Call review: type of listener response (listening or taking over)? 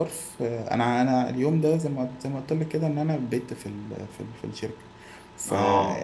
listening